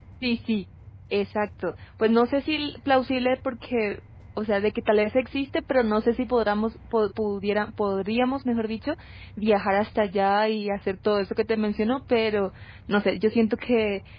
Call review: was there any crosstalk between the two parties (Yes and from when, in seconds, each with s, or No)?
No